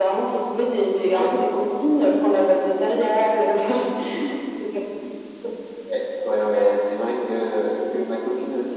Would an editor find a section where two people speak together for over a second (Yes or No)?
No